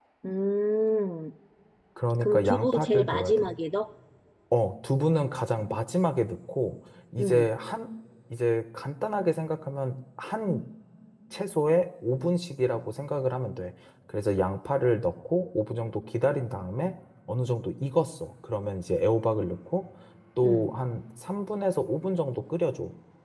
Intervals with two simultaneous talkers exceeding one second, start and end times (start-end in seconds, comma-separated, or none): 2.2-3.6